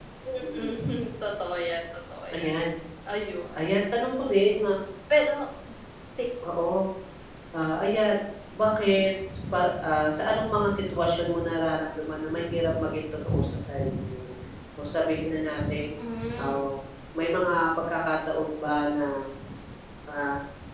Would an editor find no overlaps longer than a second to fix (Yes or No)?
Yes